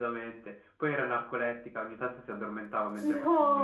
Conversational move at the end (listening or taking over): taking over